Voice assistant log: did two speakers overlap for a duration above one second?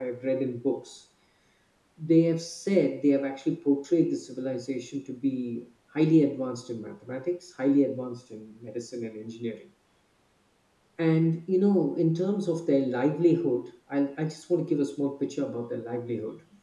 No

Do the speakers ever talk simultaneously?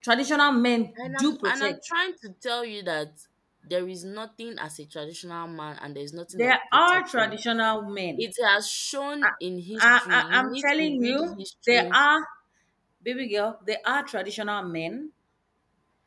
Yes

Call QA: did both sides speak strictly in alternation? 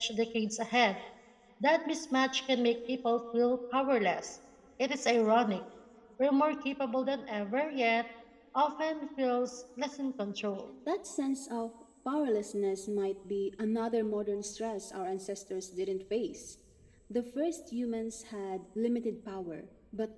Yes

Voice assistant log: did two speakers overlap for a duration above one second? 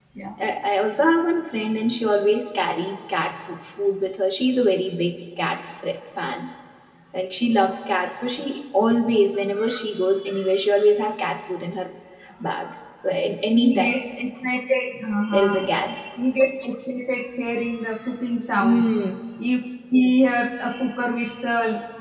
No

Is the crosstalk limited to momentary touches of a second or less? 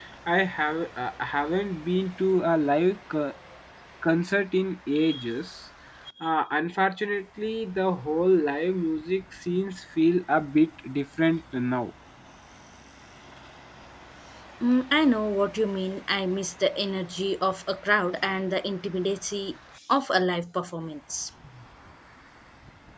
Yes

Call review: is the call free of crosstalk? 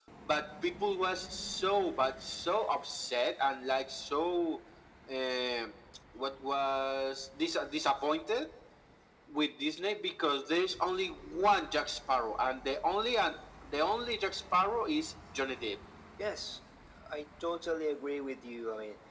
Yes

